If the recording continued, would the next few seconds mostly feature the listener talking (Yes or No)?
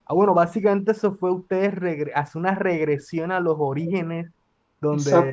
No